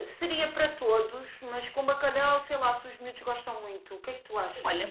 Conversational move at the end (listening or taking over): taking over